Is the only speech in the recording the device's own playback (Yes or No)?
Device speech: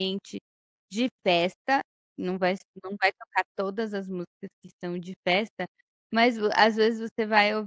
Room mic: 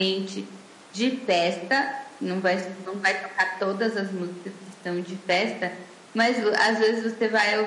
Yes